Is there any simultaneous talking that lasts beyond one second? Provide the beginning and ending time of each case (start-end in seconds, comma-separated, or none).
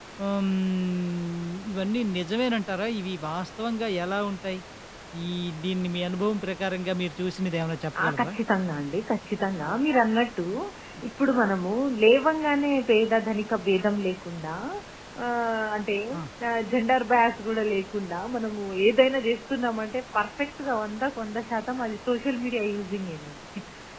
none